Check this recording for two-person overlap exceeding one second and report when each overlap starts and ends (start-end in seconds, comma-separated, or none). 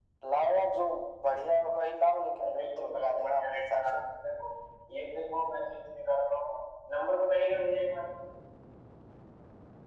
2.4-4.0